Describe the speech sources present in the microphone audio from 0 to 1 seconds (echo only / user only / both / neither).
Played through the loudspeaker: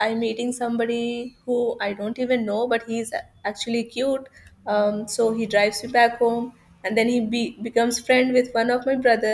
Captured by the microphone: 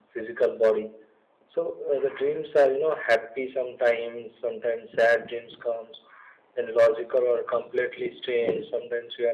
user only